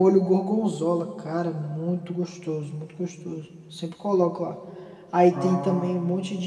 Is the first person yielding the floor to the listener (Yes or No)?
No